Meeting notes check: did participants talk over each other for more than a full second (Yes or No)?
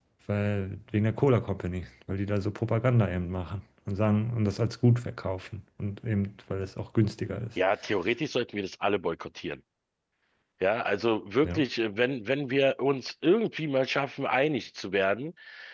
No